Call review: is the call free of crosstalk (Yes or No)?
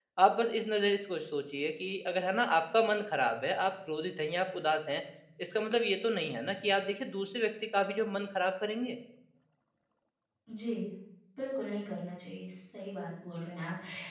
Yes